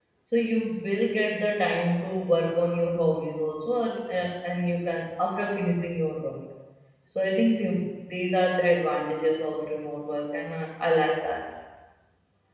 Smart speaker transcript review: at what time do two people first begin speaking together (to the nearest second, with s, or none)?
none